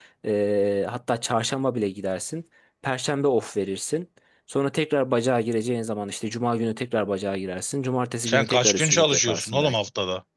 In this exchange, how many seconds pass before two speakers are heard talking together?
8.2 s

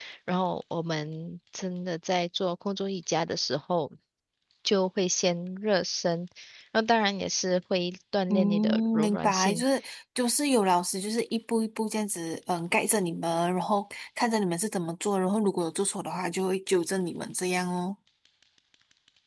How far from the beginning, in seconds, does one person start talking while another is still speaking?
8.3 s

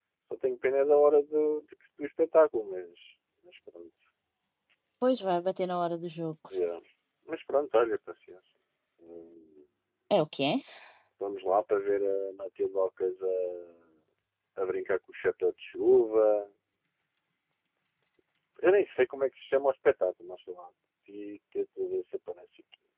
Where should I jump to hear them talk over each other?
none

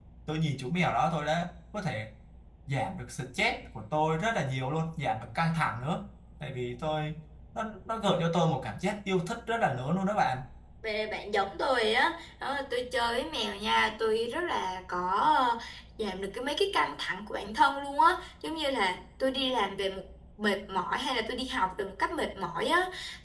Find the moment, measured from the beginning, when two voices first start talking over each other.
none

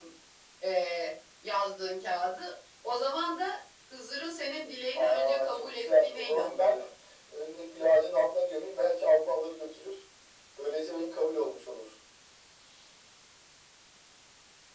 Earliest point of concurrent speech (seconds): 4.9 s

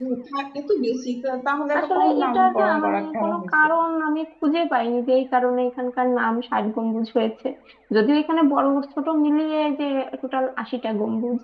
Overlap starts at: 1.7 s

